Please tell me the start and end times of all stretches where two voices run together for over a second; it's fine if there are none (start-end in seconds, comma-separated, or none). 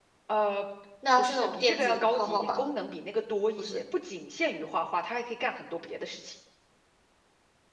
1.2-2.6